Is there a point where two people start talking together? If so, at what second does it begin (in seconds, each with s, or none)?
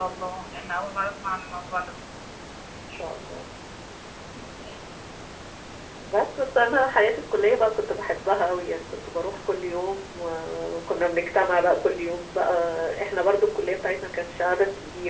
none